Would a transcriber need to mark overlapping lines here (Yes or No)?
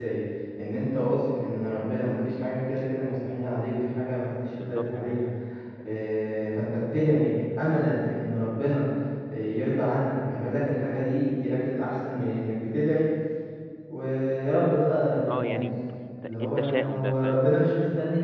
Yes